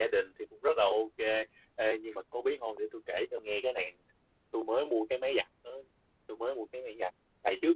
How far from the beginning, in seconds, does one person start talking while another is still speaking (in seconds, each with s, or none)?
none